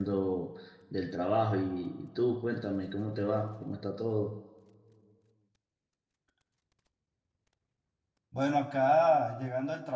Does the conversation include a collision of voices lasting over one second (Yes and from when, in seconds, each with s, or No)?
No